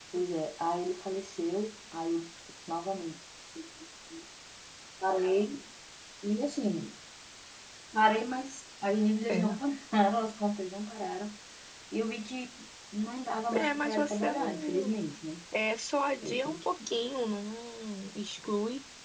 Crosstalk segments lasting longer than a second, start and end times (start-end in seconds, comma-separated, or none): 13.5-14.9